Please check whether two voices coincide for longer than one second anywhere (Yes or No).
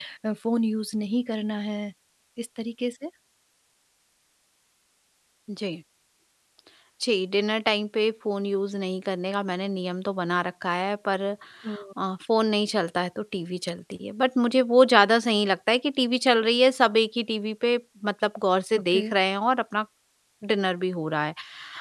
No